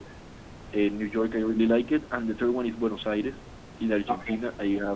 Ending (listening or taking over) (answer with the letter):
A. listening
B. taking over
A